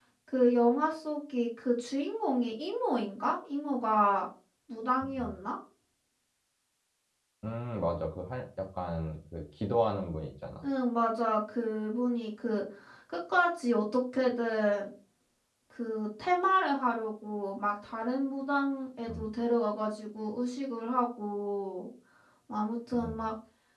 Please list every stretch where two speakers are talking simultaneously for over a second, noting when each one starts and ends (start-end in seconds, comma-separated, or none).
none